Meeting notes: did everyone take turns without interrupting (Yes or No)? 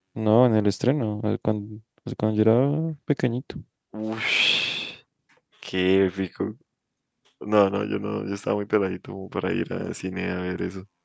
Yes